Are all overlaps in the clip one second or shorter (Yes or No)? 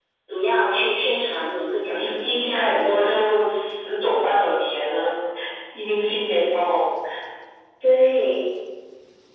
No